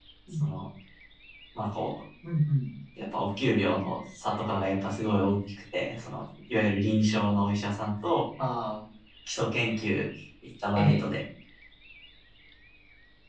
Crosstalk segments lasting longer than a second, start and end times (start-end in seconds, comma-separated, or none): none